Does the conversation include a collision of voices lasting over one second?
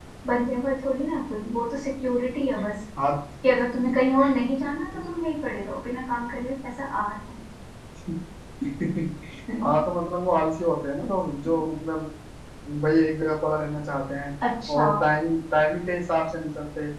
No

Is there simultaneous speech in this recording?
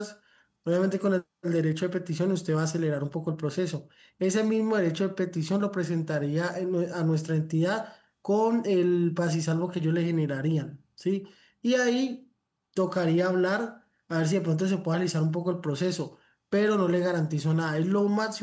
No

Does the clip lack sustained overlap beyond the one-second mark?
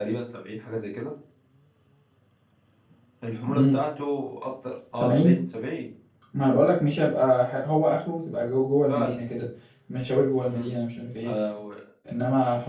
Yes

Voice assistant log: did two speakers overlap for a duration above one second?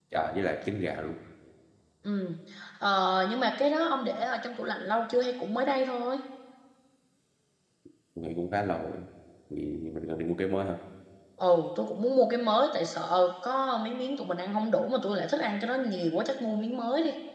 No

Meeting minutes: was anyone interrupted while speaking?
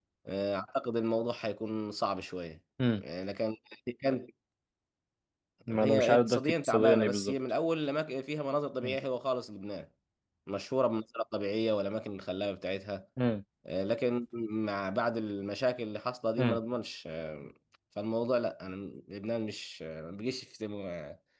Yes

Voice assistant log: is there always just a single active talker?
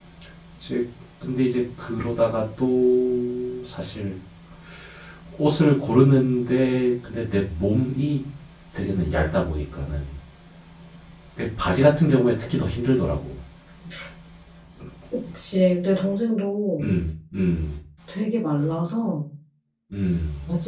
Yes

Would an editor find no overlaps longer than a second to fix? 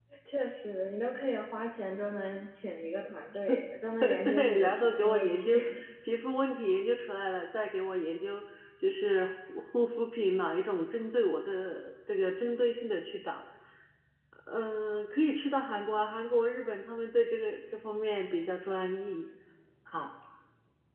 No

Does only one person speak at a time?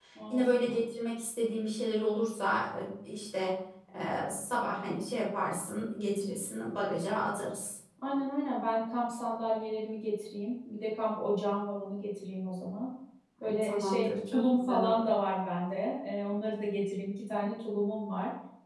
No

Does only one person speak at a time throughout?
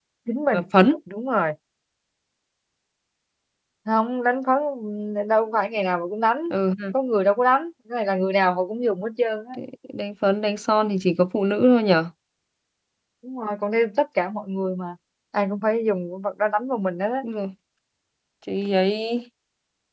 Yes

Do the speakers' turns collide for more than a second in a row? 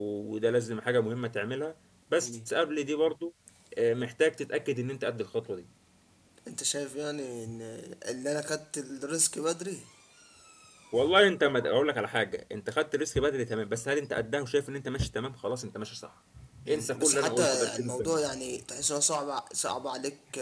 Yes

